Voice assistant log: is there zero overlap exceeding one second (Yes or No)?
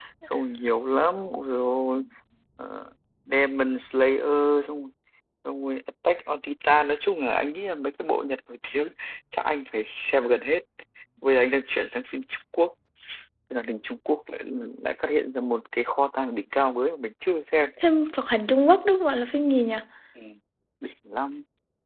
Yes